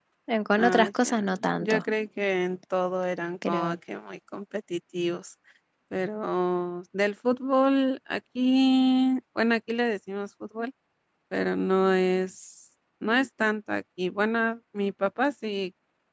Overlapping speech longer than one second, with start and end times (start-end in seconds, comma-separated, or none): 0.6-1.8